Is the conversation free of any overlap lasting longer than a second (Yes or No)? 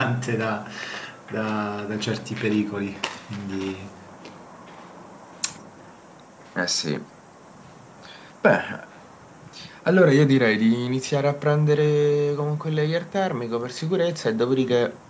Yes